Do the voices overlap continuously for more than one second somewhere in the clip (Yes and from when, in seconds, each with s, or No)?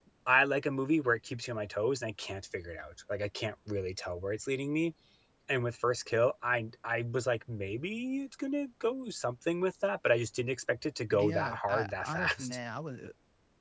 Yes, from 11.1 s